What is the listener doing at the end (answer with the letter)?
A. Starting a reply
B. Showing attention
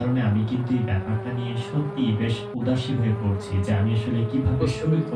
B